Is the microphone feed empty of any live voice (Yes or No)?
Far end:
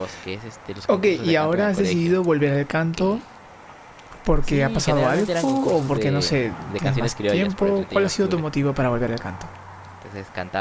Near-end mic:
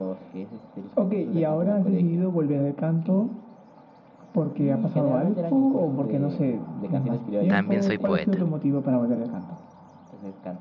No